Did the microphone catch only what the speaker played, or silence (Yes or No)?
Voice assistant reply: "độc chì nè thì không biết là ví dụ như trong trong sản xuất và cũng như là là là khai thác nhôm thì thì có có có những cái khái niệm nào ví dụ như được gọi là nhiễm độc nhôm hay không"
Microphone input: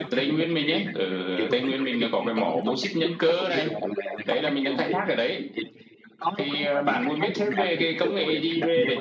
No